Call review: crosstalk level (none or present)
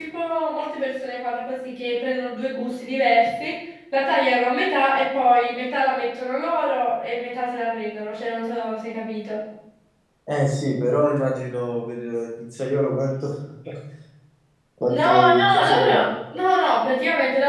present